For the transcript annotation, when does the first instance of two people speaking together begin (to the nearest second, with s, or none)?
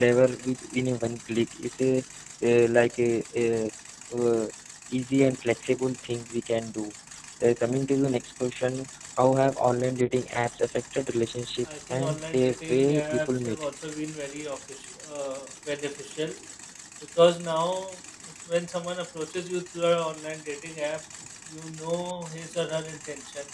12 s